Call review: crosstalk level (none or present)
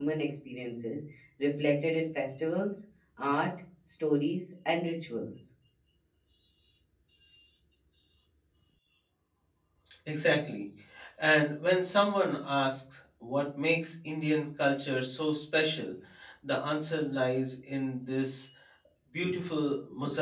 none